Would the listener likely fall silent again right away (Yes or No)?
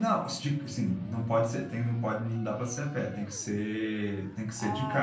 No